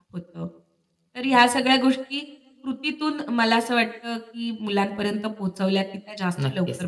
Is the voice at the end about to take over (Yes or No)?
Yes